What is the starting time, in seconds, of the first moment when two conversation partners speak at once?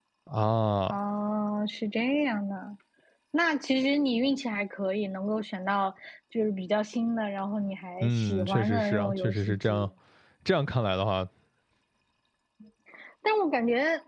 8.0 s

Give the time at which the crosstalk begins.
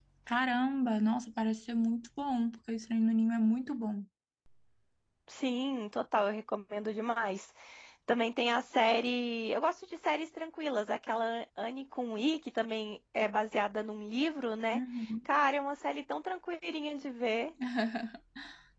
none

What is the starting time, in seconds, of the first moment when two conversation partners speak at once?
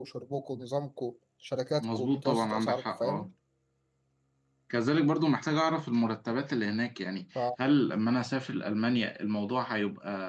1.8 s

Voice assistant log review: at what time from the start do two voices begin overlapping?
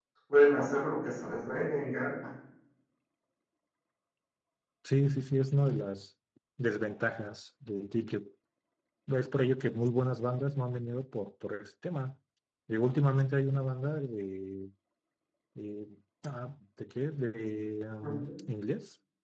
none

